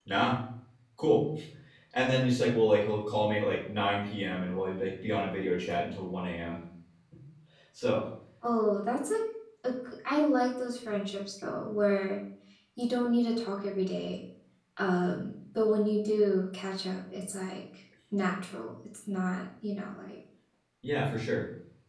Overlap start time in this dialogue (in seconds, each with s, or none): none